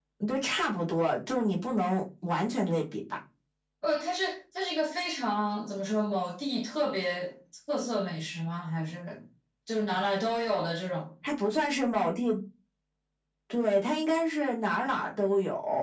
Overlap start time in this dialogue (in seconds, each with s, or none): none